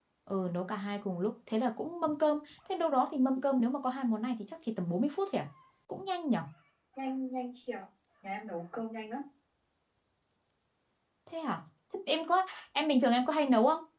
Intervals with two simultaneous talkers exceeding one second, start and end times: none

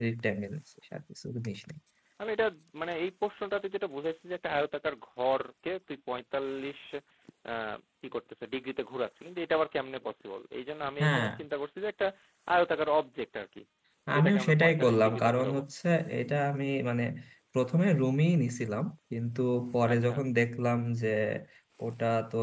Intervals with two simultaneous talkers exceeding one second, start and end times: 14.2-15.6

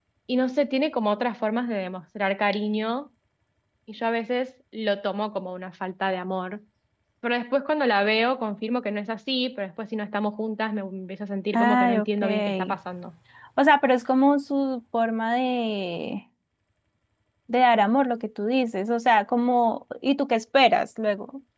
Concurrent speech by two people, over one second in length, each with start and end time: 11.5-12.7

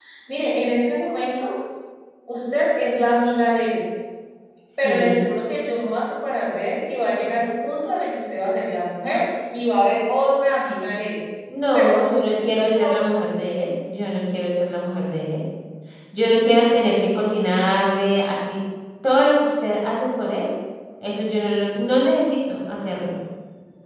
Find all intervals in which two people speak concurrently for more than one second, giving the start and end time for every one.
11.7-13.2

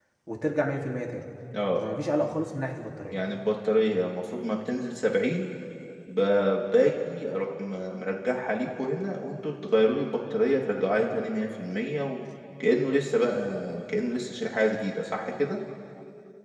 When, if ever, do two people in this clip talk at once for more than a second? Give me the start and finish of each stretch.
none

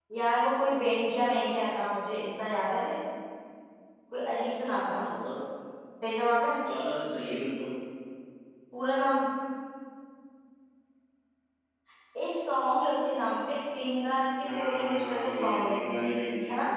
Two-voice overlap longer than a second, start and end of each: 14.4-15.8

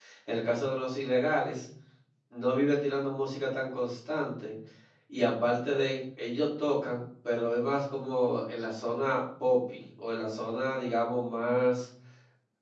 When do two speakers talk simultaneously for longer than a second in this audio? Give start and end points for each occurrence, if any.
none

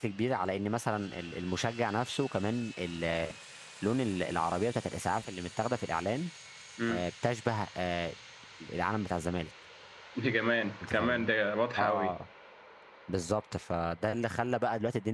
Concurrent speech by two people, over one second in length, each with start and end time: none

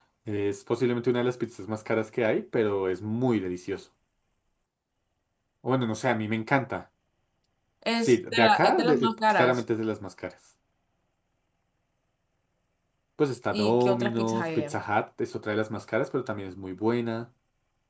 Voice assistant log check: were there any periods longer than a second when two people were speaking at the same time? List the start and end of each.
8.0-9.6, 13.5-14.8

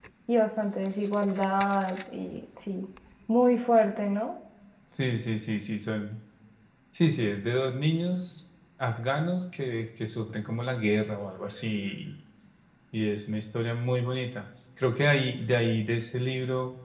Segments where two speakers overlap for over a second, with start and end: none

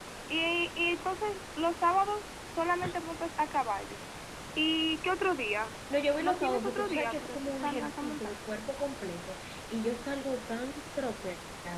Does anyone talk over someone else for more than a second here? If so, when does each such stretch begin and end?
6.2-8.3

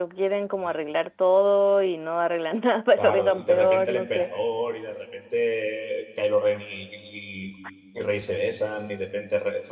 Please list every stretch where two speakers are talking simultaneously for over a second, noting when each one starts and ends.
3.0-4.3

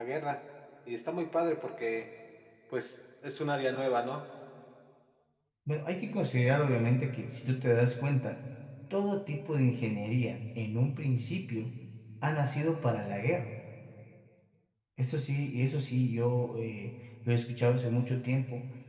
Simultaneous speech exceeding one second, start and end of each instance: none

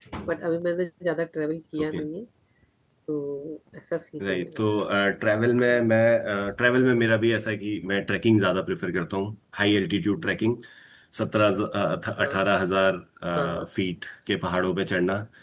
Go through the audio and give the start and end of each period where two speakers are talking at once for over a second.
none

